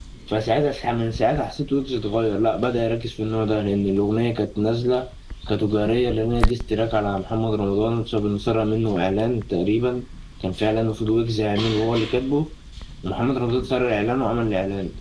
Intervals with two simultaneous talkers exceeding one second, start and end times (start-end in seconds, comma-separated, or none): none